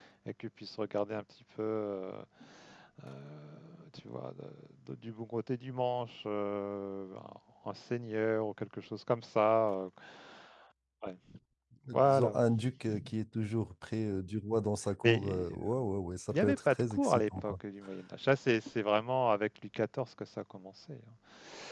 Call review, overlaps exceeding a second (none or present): present